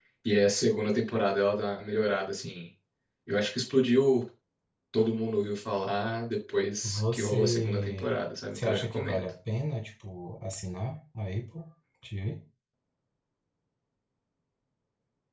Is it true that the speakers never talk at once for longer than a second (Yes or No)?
No